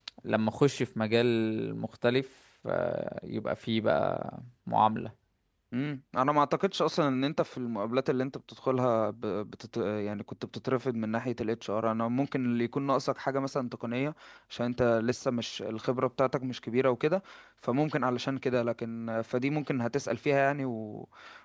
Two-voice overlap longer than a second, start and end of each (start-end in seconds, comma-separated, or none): none